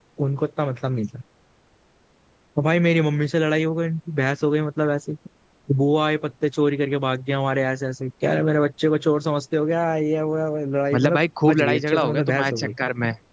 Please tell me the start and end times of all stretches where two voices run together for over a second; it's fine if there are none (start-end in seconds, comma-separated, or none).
10.9-12.7